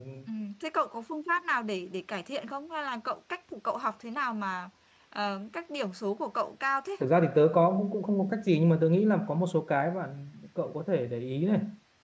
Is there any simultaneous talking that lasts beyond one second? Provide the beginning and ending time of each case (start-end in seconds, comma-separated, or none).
none